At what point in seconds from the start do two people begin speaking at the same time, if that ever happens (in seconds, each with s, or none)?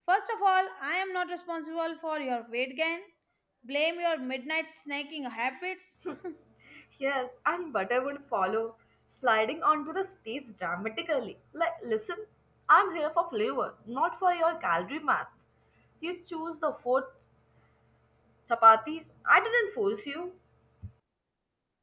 none